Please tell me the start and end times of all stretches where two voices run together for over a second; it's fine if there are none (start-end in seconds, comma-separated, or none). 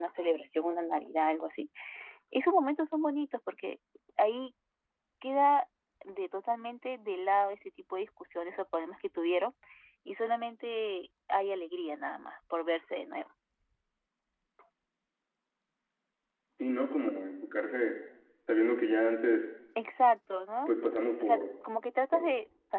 none